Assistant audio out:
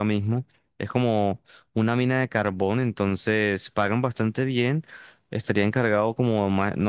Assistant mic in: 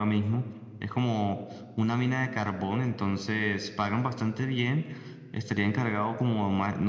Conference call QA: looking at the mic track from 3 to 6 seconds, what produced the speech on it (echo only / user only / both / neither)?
echo only